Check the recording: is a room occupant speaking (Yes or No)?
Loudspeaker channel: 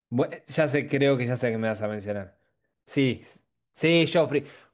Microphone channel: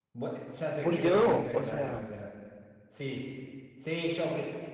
Yes